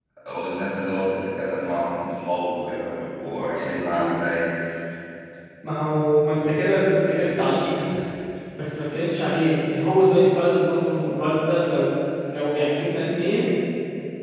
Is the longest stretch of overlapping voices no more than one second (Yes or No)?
Yes